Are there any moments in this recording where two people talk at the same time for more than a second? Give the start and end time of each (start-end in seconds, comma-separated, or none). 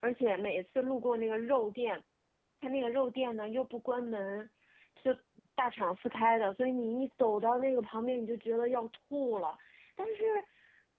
none